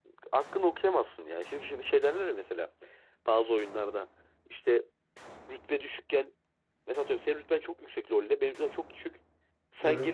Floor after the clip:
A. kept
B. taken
A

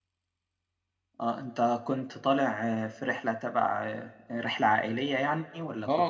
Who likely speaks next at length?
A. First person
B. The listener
B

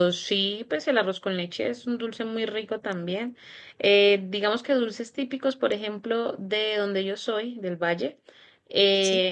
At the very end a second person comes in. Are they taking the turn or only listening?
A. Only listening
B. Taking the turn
A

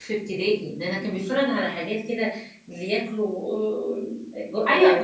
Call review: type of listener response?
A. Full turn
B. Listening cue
A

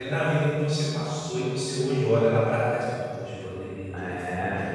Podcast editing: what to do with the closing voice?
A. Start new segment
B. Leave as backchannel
A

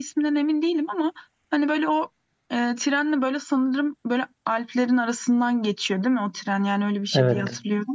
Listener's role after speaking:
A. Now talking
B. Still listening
A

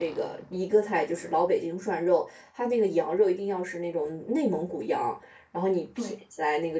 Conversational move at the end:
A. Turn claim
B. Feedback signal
B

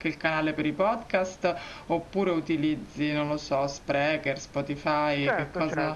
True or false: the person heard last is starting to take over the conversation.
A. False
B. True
B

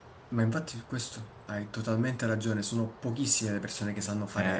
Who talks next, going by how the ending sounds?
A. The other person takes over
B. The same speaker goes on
B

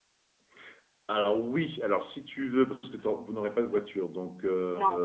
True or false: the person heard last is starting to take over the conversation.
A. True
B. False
B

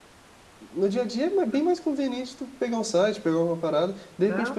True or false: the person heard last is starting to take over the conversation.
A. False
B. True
A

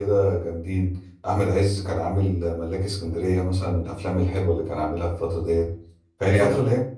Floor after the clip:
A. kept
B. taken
A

